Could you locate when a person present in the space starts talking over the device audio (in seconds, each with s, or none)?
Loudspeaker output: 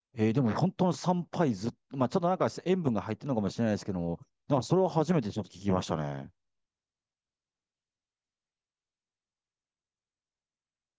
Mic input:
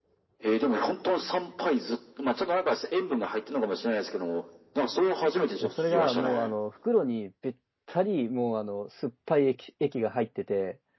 5.6 s